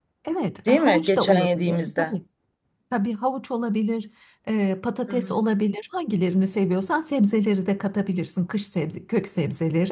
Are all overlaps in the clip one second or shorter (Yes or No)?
No